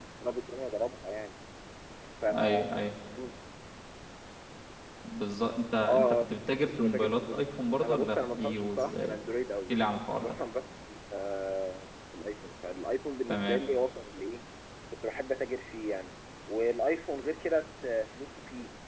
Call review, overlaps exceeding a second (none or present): present